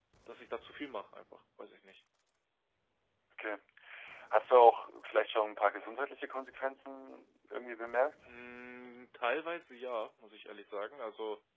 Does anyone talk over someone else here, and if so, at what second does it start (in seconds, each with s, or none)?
none